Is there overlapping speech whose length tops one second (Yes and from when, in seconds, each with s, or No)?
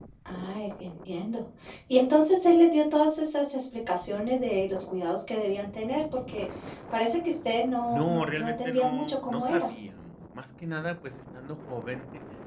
Yes, from 7.9 s